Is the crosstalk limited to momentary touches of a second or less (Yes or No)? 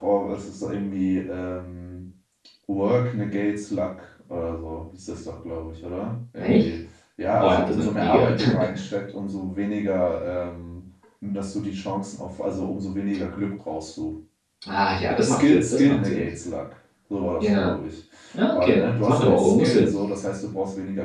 No